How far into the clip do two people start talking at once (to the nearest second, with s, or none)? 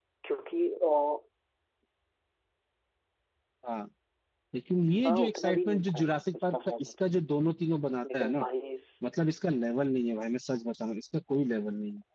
5 s